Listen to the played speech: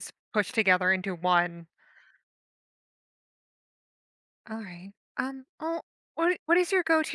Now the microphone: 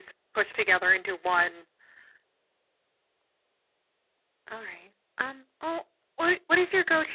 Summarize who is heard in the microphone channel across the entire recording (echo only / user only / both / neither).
echo only